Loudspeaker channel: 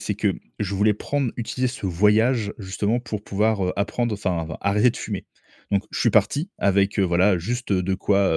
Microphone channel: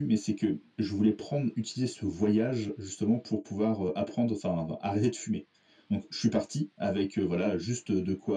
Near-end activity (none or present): none